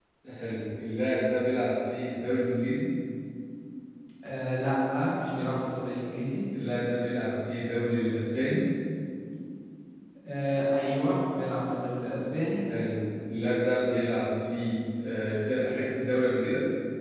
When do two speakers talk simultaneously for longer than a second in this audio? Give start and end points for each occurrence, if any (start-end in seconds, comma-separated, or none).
none